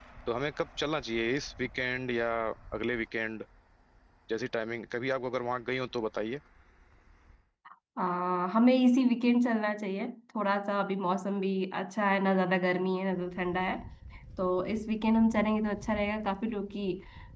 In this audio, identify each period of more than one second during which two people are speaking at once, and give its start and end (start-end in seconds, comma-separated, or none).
none